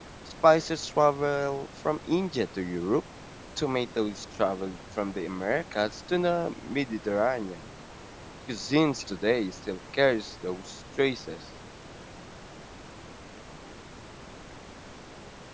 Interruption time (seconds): none

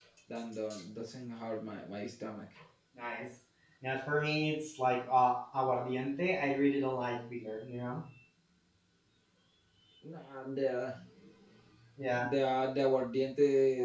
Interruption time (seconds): none

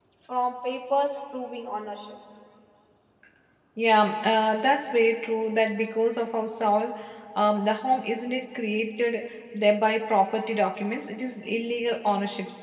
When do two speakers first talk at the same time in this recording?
none

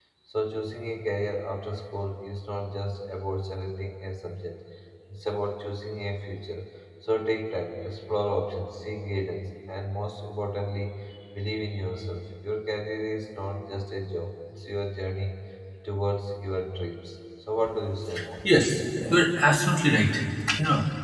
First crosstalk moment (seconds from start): none

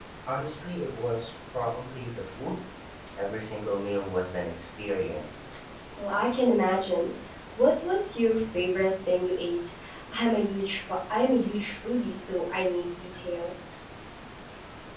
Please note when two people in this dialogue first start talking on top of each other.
none

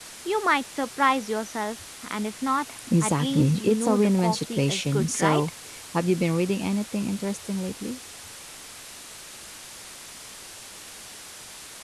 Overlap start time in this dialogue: 2.9 s

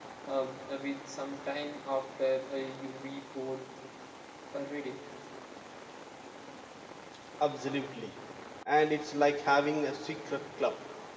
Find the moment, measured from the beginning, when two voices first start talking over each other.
none

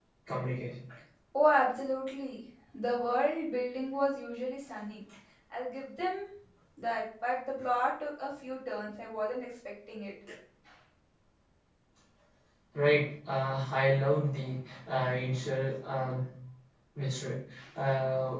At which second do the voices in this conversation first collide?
none

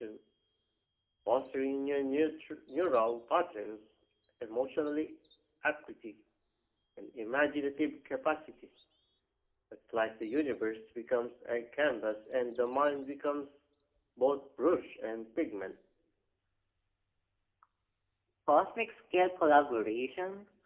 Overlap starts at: none

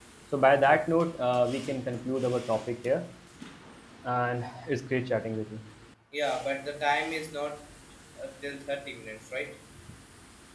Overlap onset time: none

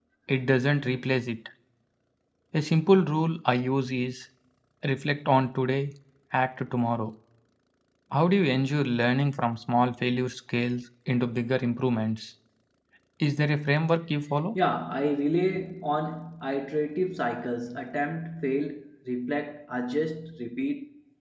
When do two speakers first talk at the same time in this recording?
none

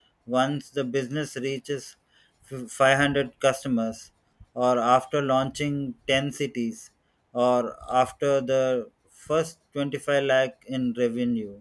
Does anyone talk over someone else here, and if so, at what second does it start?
none

